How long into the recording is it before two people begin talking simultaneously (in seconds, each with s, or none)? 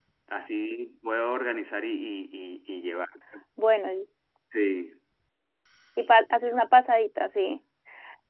none